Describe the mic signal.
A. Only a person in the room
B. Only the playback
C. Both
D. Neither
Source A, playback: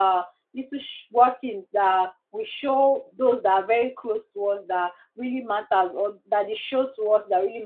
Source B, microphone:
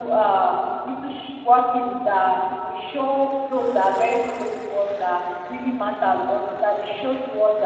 B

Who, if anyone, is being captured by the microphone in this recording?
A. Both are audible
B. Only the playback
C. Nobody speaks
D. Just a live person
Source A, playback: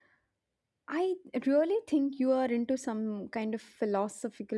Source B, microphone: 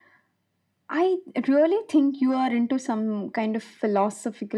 B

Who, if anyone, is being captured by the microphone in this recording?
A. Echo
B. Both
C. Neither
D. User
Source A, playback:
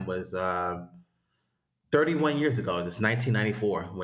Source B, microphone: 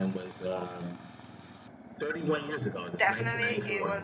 B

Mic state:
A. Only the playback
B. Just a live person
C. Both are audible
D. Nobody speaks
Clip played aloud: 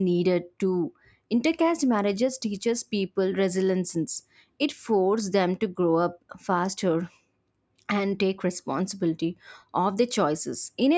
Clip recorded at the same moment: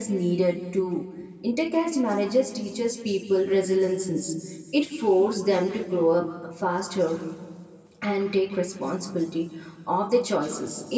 A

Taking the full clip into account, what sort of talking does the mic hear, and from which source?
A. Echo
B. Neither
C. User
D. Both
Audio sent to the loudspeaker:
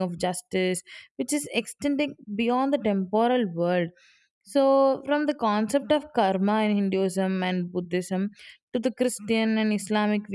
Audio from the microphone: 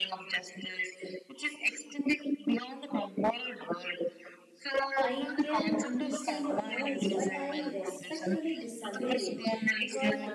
D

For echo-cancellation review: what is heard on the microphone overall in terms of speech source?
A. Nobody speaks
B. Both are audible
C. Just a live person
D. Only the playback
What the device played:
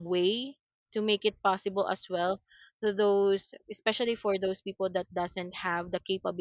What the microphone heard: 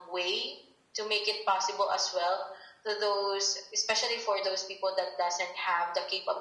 D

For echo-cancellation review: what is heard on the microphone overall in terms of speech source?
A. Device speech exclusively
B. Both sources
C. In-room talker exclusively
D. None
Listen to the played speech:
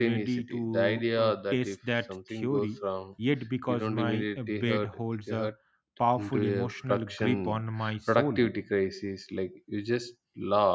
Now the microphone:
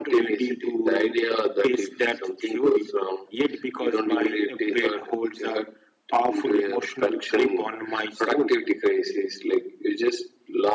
A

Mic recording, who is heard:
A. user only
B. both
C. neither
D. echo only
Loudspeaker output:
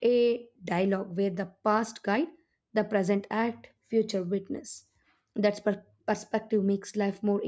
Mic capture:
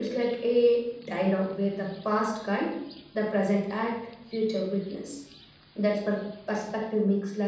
D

